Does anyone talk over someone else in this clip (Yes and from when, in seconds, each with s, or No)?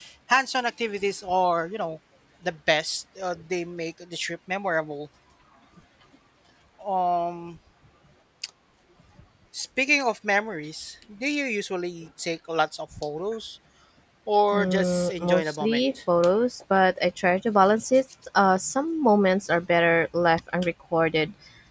Yes, from 14.5 s